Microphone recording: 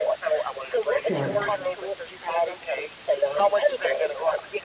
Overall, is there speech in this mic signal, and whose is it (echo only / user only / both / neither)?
both